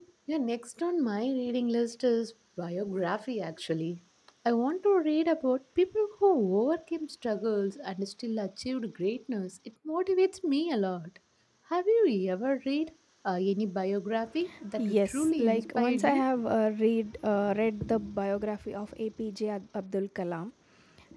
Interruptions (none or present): present